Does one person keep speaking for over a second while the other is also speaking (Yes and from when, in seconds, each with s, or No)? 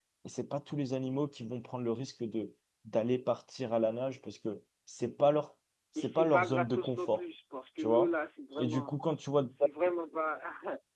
Yes, from 6.0 s